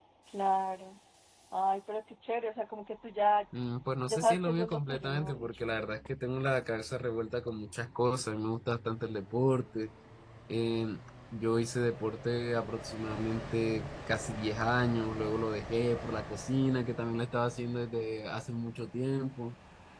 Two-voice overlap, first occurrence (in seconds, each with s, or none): 4.1 s